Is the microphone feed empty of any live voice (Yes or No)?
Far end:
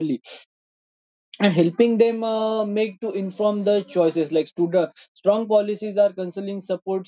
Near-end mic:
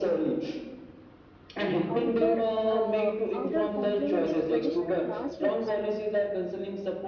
No